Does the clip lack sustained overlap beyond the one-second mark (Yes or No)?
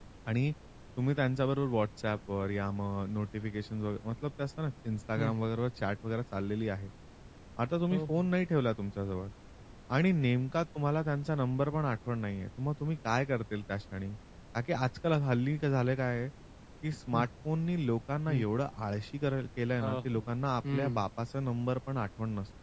Yes